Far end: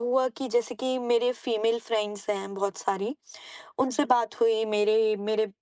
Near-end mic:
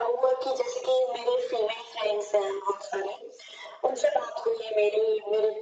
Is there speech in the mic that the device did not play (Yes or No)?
No